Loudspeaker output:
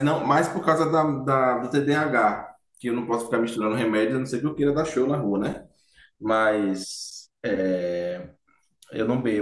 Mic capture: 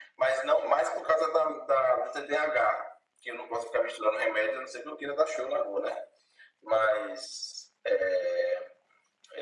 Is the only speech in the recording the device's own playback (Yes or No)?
Yes